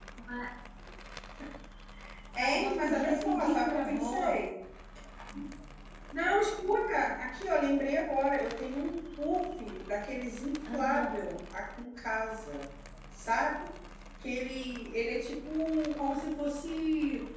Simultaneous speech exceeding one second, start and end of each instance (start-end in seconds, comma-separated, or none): 2.4-4.3